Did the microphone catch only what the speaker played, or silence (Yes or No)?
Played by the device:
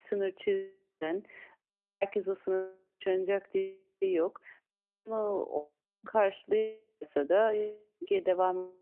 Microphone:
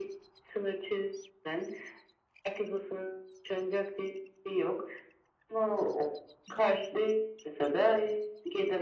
Yes